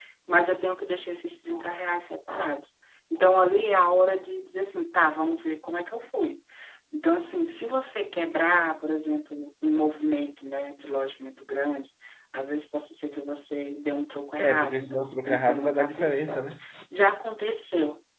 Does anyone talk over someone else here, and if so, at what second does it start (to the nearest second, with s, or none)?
14 s